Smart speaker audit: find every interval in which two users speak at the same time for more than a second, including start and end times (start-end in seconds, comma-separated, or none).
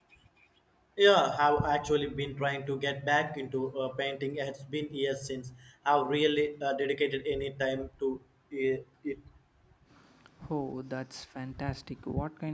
none